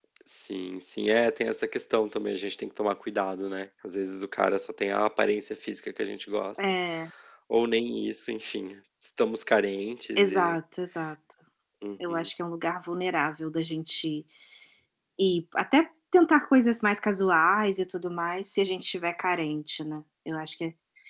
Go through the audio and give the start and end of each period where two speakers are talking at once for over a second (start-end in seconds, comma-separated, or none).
none